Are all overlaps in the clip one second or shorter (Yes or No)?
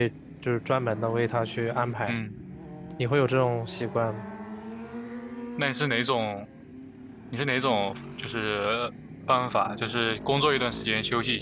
Yes